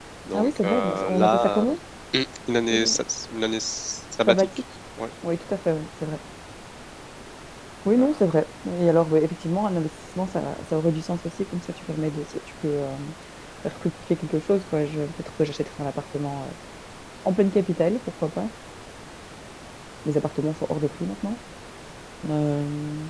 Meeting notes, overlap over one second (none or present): present